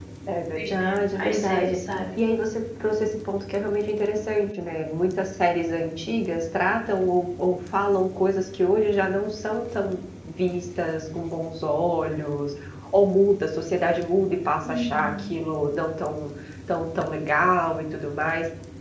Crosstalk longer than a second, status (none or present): present